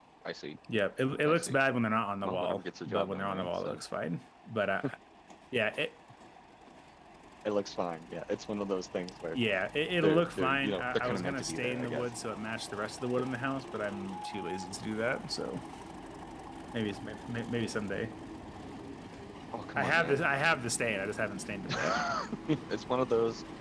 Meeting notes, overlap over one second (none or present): present